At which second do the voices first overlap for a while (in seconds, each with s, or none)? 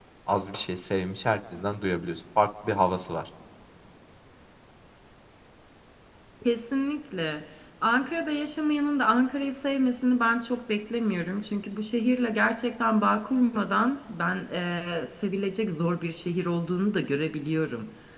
none